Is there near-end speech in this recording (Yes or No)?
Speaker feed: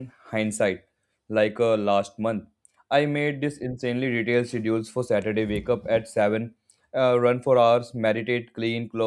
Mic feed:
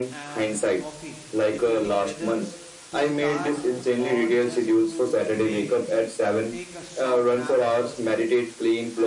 Yes